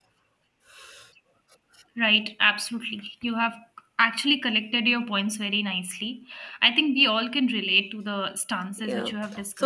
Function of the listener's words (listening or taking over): taking over